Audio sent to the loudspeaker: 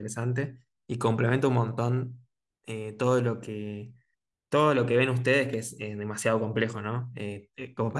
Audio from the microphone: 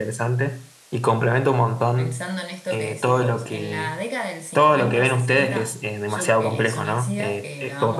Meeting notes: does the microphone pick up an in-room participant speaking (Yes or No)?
Yes